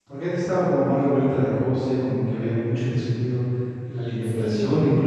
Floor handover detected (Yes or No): No